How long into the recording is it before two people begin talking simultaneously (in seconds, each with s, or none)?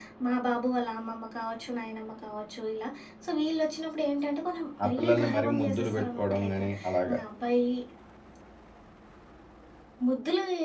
4.8 s